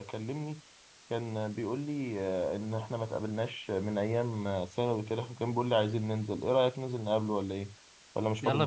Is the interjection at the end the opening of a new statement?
Yes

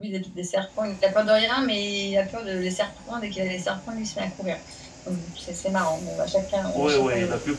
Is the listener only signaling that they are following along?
No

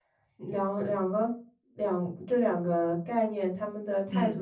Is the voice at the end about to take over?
No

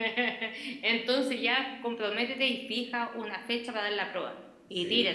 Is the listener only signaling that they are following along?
No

